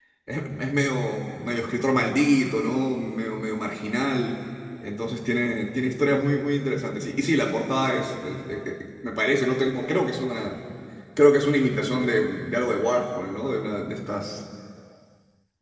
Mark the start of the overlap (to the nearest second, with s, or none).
none